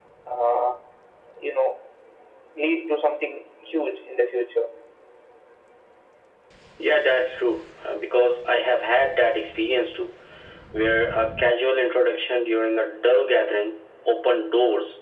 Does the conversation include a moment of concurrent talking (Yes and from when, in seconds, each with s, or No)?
No